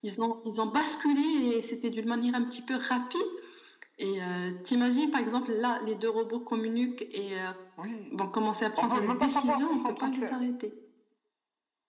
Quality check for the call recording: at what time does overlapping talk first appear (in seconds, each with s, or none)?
8.8 s